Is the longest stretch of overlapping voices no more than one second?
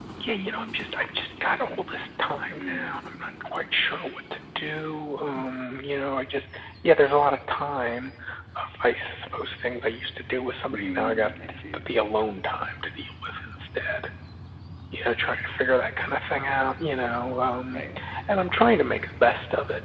Yes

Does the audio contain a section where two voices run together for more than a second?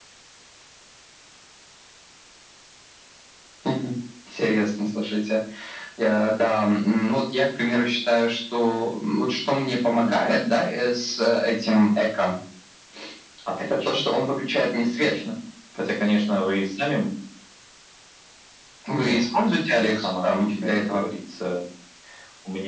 Yes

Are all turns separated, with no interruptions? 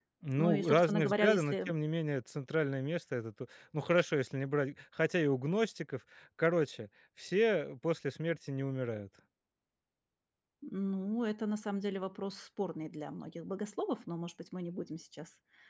No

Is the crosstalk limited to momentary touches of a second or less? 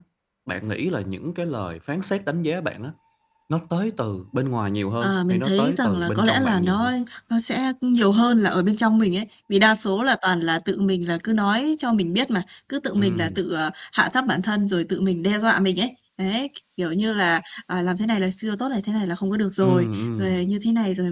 No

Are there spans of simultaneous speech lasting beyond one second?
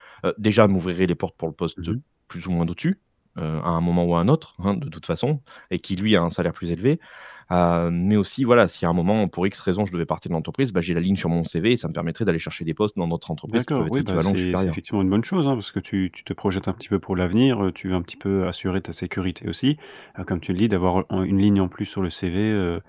Yes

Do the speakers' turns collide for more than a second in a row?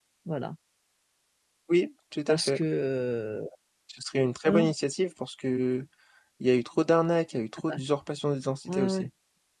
No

